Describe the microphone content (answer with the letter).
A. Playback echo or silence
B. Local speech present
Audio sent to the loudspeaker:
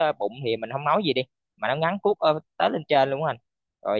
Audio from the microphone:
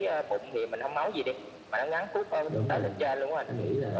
B